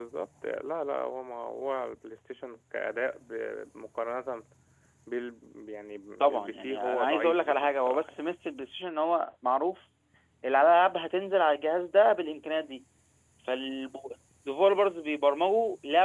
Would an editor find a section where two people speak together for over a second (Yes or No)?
Yes